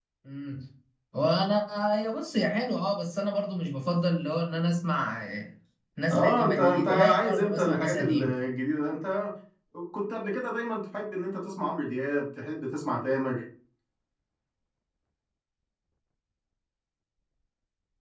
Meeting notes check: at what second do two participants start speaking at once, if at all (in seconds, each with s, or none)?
6.1 s